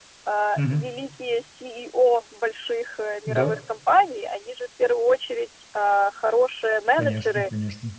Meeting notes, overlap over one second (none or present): none